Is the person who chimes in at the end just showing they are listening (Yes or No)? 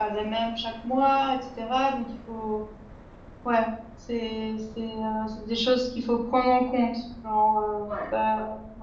Yes